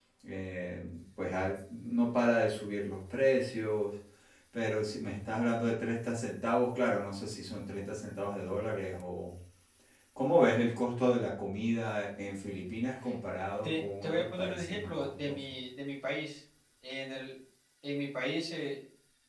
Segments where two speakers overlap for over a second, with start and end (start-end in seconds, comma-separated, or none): 13.6-15.5